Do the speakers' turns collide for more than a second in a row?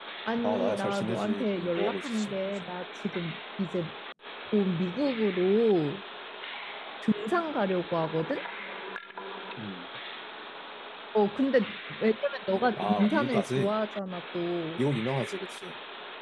Yes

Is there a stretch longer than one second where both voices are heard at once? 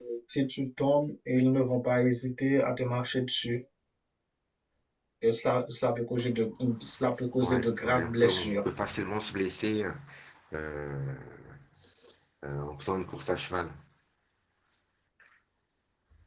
Yes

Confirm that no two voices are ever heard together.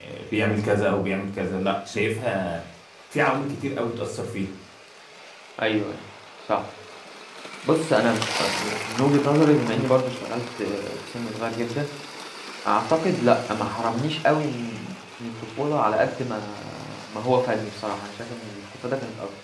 Yes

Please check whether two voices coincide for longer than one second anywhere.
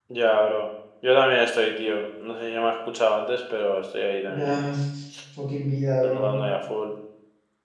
No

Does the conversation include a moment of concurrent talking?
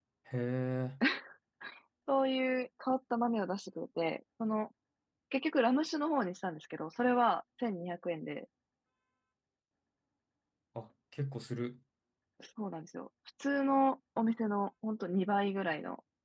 No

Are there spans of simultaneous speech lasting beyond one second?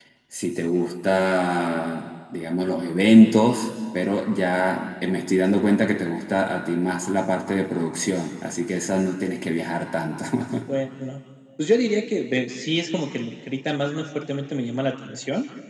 No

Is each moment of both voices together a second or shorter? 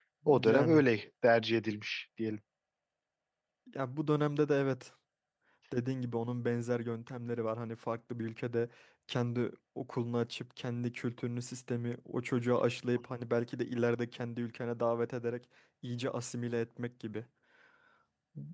Yes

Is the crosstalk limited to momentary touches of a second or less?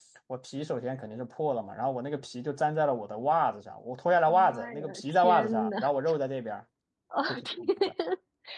No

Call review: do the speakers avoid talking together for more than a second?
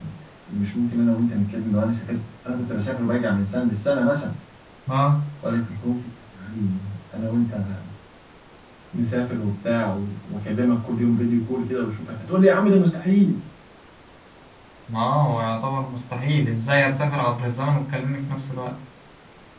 Yes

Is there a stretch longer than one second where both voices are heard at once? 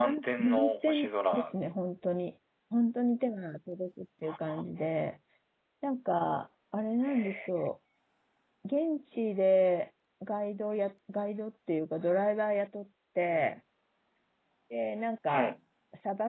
Yes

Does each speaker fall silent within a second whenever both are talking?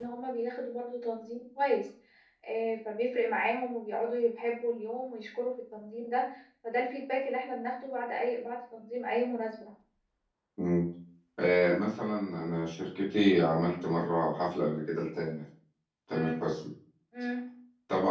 Yes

